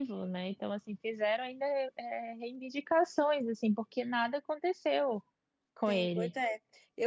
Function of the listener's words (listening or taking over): taking over